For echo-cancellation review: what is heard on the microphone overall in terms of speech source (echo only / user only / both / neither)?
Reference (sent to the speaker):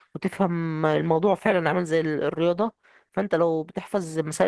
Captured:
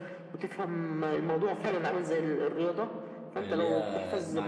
both